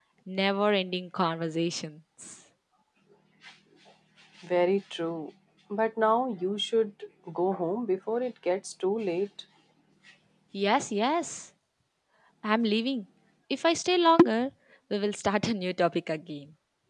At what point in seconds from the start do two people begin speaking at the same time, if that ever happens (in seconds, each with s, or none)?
none